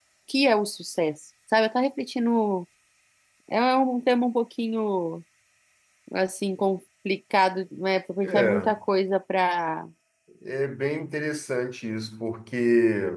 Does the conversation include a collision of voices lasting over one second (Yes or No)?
No